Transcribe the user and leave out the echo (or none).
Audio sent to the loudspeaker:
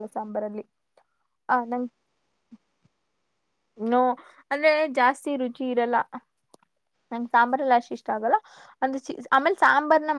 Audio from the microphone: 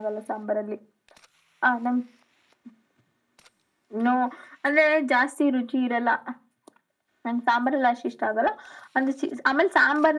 none